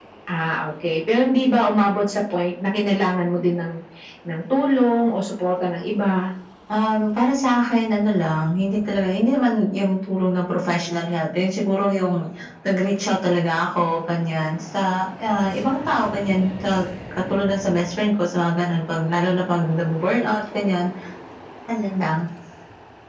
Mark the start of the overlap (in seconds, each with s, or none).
none